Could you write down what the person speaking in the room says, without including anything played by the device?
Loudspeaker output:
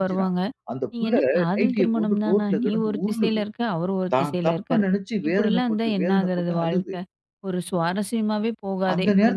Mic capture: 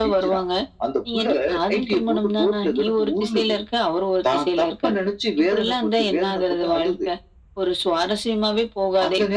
none

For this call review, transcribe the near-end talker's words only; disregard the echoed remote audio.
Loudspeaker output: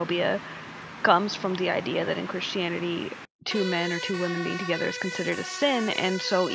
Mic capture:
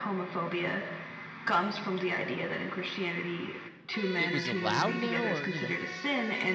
it was allowed now or, you know

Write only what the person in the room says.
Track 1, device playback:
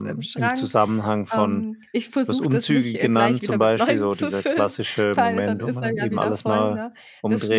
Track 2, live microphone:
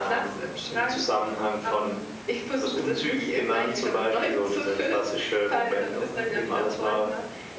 none

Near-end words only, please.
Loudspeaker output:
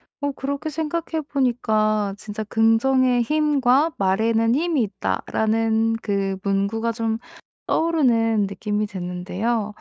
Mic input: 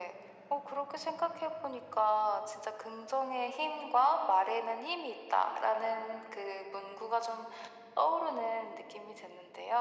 none

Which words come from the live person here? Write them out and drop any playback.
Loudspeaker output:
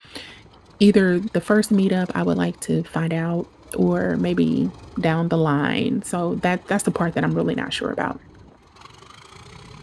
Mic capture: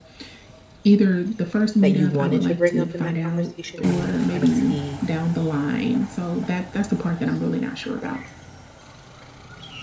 that you wanted to bring up in that conversation, and you kinda see

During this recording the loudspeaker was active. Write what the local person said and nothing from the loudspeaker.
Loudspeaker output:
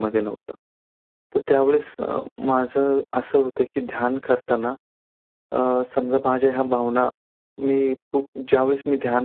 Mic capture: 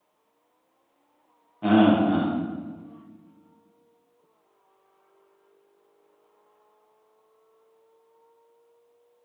हां, हां.

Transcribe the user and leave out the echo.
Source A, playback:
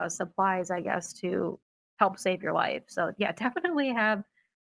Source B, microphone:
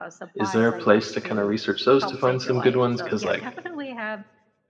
is there a place to kind of research those to find some good ones? Because like

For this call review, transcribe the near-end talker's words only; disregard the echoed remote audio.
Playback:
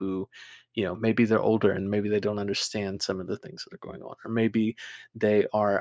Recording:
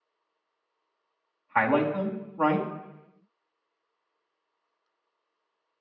highlight them, right?

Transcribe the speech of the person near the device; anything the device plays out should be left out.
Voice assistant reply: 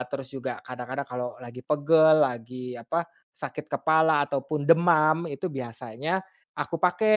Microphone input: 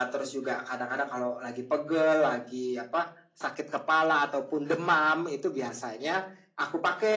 none

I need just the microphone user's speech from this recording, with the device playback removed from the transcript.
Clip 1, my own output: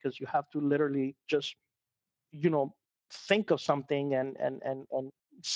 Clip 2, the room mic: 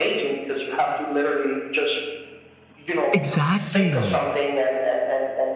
Exactly.

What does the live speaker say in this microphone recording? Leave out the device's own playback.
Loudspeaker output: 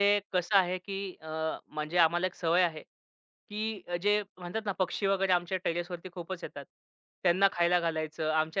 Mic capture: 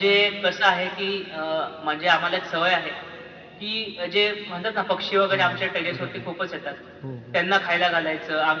हां, बरोबर. हो, हो.

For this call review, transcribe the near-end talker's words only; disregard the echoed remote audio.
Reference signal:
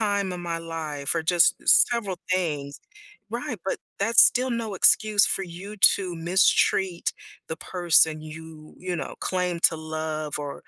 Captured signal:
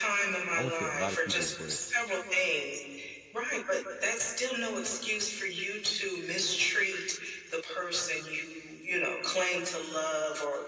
I won't say a lot of people, but

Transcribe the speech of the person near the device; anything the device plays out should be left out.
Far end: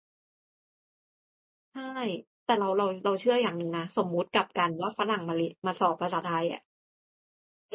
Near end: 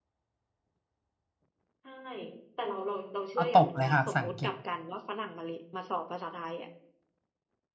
ก็ตกเลยค่ะภาษาอังกฤษ

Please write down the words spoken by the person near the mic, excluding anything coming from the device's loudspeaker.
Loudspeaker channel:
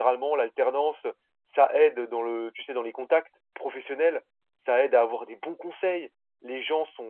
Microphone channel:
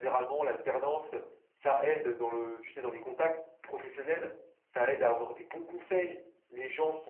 none

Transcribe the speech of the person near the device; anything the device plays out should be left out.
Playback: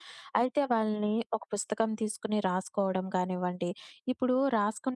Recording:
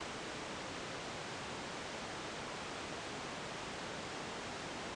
none

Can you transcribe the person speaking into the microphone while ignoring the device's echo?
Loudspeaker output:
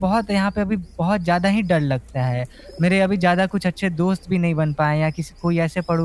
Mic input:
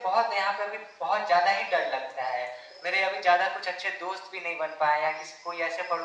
none

